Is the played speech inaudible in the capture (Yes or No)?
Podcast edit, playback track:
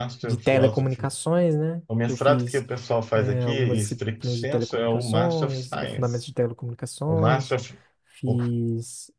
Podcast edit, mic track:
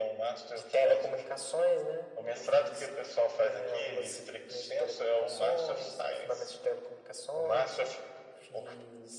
No